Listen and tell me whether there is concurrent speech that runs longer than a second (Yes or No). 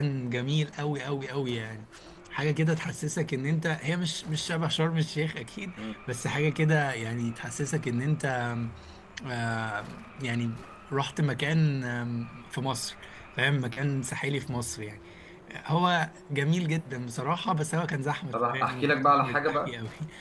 Yes